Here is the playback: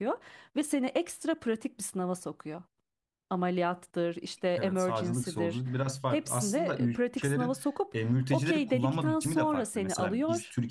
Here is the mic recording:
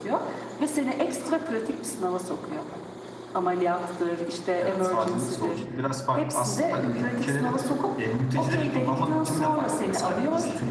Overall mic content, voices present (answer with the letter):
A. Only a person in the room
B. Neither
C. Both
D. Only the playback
D